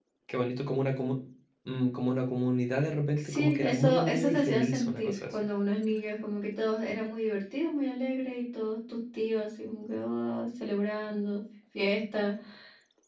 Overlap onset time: 3.2 s

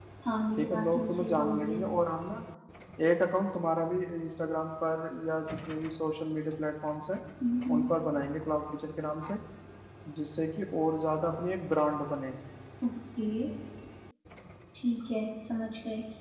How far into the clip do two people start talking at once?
0.6 s

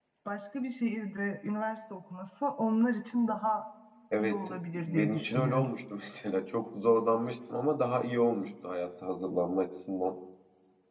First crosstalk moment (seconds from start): 4.2 s

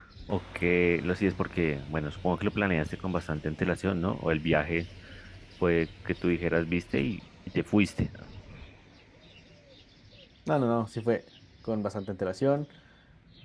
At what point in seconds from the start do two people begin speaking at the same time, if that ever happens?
none

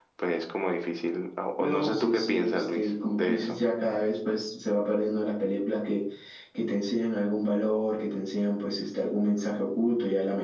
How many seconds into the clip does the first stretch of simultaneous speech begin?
1.6 s

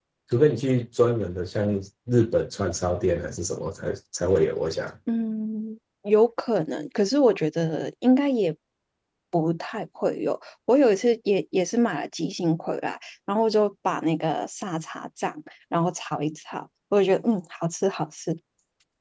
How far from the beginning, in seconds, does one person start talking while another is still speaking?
none

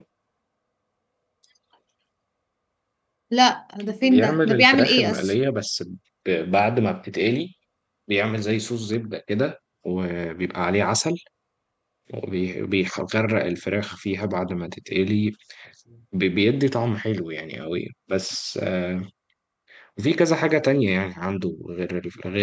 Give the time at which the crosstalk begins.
4.0 s

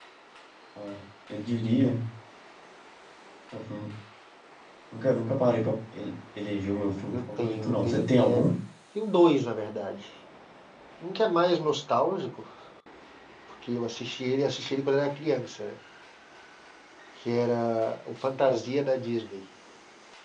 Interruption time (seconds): 7.1 s

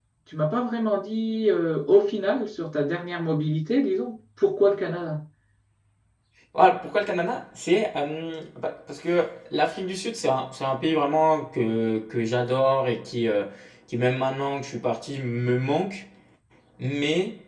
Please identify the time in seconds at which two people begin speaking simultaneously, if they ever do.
none

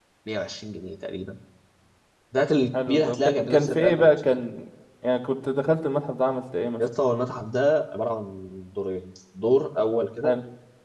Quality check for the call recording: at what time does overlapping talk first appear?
2.9 s

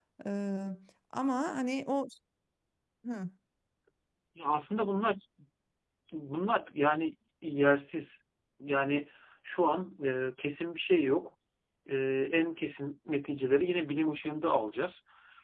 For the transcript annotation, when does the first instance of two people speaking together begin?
none

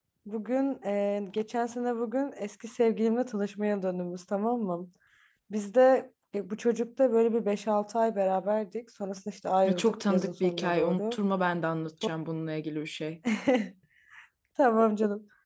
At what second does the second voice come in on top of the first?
9.6 s

